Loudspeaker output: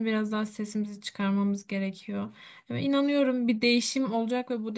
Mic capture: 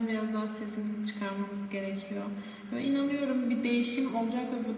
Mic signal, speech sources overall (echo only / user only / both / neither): echo only